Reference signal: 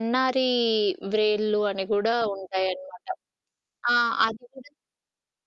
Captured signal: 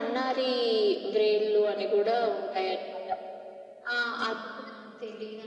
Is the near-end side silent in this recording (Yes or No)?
No